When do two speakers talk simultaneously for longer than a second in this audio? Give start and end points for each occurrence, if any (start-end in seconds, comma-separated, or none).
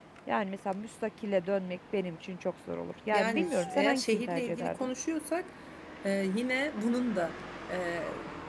3.1-4.9